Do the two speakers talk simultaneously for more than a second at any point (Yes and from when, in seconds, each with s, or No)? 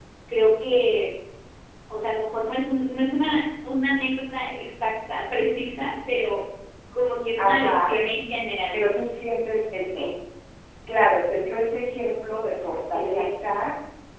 No